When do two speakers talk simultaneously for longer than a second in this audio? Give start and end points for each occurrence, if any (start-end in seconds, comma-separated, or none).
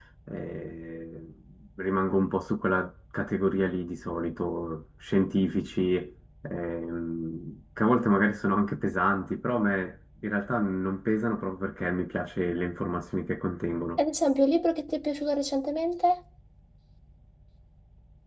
none